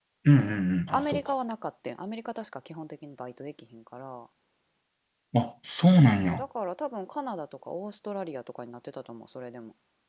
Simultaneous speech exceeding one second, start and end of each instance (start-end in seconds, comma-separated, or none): none